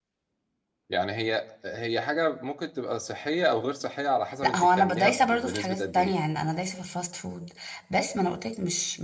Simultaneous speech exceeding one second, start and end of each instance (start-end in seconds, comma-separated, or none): 4.4-6.1